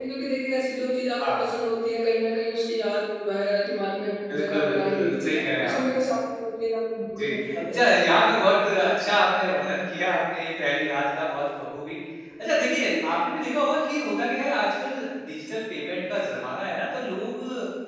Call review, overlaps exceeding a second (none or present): present